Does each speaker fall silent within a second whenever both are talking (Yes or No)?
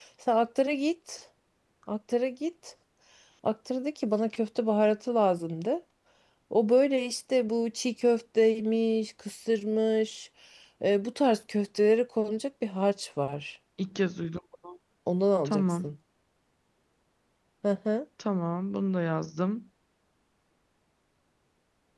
Yes